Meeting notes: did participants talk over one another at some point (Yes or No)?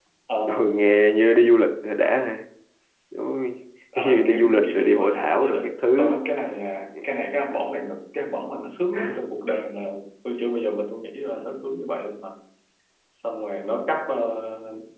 Yes